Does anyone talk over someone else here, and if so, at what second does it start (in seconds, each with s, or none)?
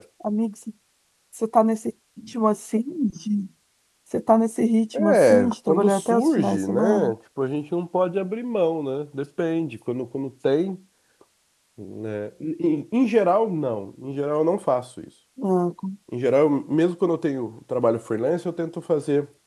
4.9 s